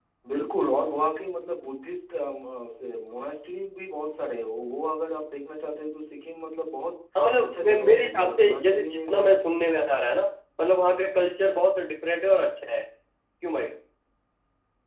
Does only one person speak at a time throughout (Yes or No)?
No